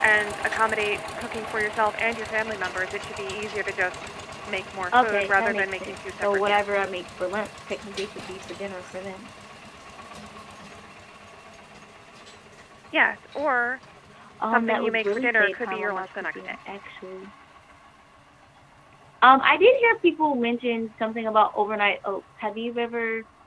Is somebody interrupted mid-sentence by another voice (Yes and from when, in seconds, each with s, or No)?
Yes, from 5.0 s